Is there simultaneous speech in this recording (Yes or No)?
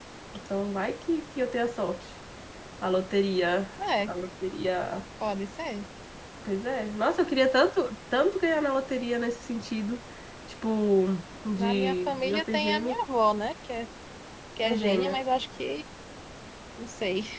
Yes